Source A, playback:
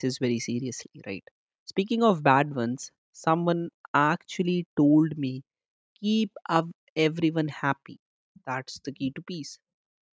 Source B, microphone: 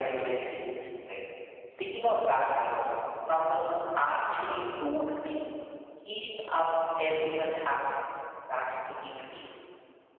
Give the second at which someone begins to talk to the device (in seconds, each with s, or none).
none